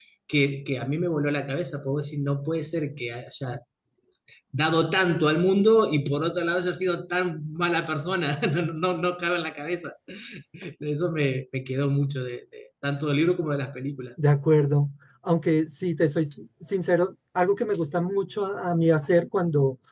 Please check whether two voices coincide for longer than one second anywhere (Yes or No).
No